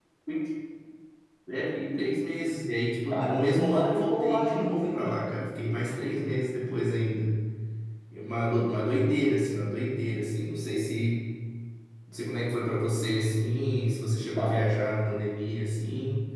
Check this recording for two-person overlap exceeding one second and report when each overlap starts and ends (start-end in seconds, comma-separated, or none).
3.1-4.6